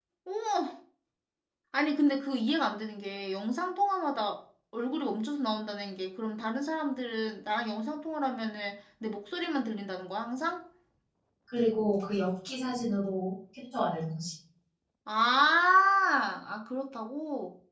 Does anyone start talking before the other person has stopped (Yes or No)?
No